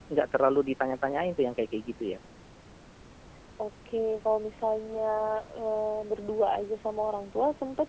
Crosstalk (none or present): none